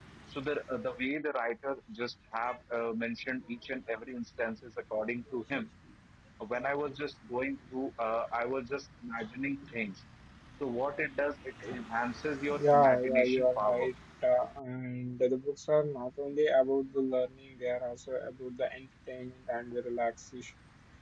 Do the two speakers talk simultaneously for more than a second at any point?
Yes, from 12.5 s

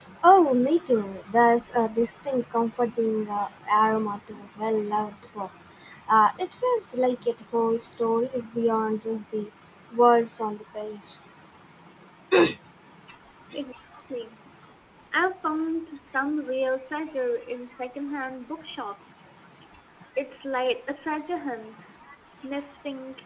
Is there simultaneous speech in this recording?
No

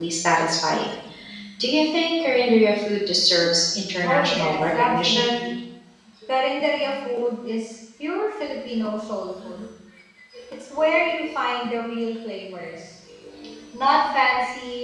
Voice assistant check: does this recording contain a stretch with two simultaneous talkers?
Yes, from 4.0 s

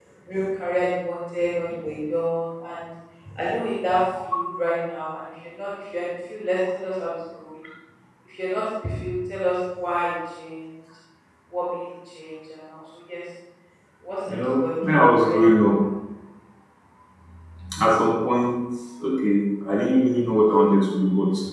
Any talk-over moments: Yes, from 14.3 s

